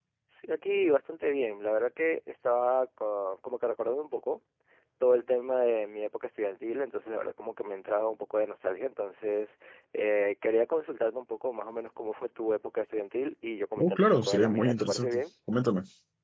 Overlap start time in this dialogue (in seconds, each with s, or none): 13.8 s